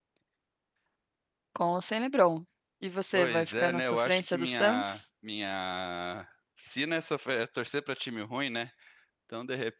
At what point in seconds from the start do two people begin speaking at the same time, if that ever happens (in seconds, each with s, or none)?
3.1 s